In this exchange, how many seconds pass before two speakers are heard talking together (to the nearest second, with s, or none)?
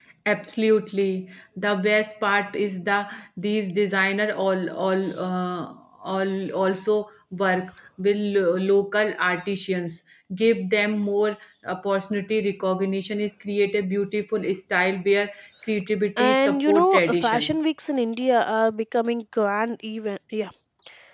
16 s